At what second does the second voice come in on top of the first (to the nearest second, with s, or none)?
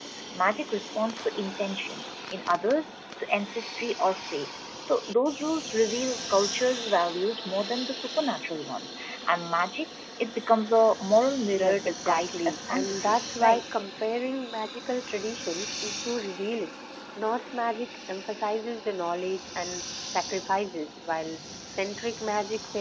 12 s